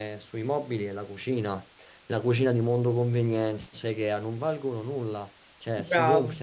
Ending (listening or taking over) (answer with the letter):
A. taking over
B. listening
B